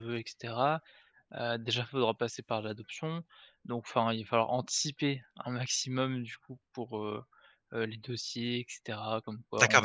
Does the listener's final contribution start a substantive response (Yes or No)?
Yes